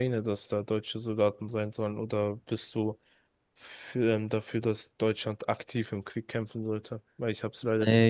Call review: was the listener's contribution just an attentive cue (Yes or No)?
No